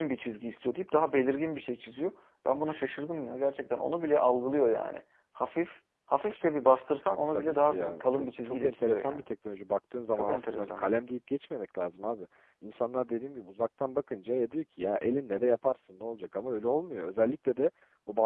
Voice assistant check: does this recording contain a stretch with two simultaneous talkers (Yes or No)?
Yes